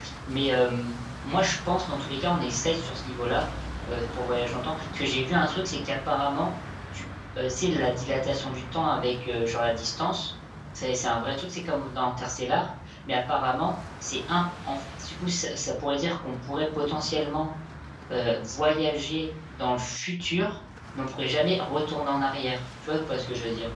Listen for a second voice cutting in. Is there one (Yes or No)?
No